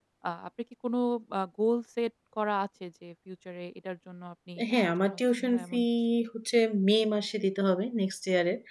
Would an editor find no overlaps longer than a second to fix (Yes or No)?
No